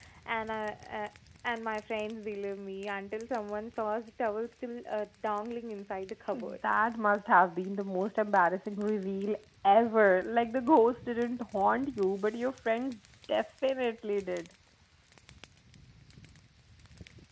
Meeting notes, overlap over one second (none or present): none